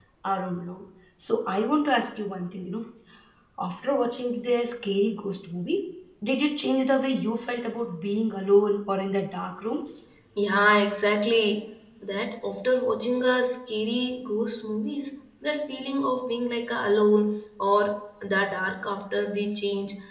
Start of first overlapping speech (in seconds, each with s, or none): none